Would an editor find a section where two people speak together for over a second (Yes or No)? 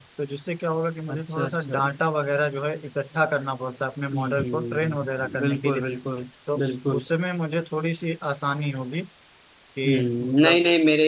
Yes